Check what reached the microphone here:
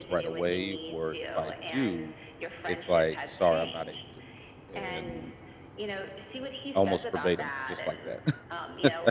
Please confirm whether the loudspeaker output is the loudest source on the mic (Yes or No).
No